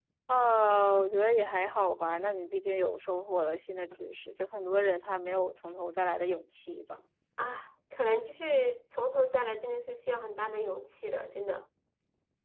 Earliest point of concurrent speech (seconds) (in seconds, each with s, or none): none